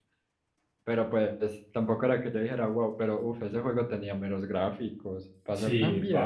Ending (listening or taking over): taking over